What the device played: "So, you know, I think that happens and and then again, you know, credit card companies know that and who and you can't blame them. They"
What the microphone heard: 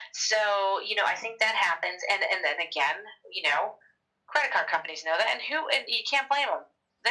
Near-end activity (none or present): none